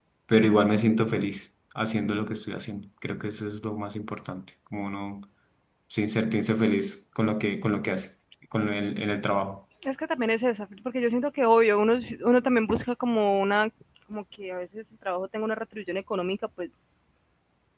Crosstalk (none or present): none